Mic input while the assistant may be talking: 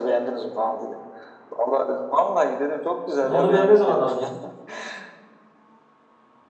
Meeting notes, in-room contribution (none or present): present